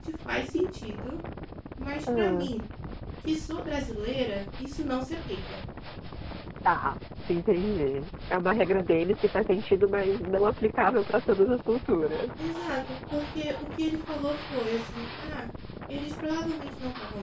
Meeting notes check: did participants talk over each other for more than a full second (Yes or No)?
No